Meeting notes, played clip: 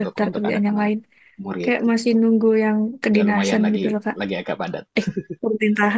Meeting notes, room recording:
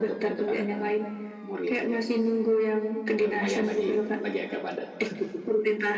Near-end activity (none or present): none